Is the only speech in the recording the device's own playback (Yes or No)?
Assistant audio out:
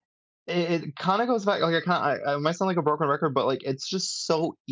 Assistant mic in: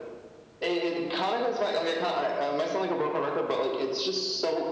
Yes